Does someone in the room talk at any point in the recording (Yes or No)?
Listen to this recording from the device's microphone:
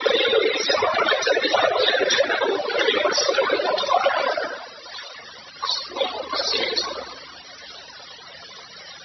No